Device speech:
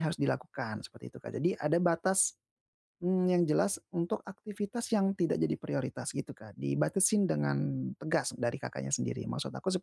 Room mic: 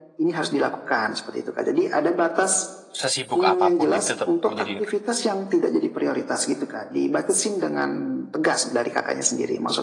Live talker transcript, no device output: Sesibuk apapun, jadi tetap menjadi

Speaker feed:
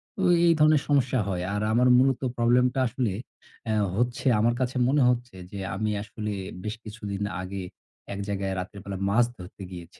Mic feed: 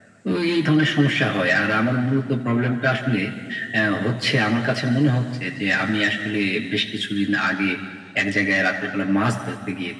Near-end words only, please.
none

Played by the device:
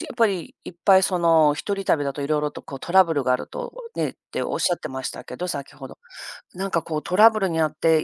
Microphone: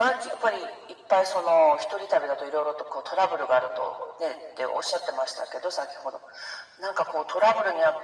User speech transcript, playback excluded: none

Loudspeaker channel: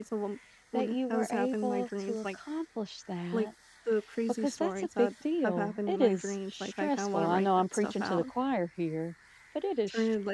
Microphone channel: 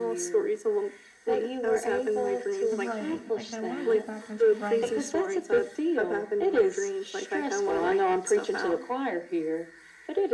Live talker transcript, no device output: writing, like, I wanna get back into writing,

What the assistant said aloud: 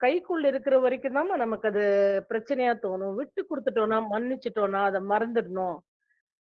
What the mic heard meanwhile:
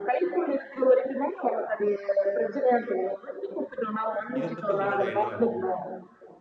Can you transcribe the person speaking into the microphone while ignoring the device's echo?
இத பத்தி உங்களோட எண்ணம் என்ன?

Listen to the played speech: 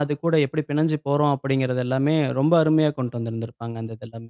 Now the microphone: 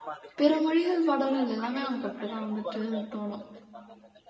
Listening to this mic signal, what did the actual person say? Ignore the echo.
பிற மொழிகள் பாடல்கள் எல்லாமே நமக்கு அப்படிதான் வந்துட்டு தோணும்.

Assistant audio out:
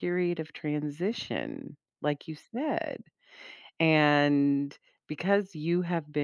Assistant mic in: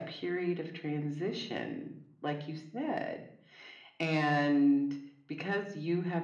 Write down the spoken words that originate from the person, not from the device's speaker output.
none

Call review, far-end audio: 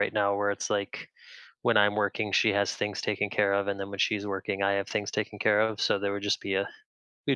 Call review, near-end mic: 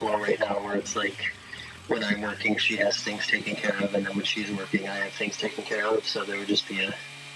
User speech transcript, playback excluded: none

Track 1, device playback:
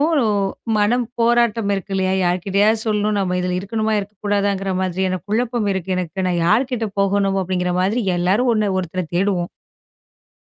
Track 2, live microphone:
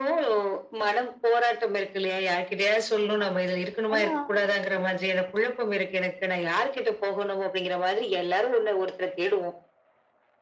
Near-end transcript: ஆமா. ஆனா

